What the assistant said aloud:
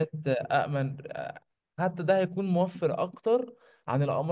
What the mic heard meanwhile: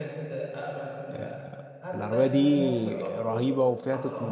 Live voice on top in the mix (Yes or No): Yes